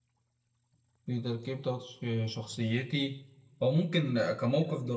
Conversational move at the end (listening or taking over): listening